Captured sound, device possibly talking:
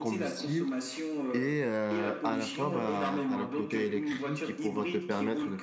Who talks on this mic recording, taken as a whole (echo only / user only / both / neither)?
both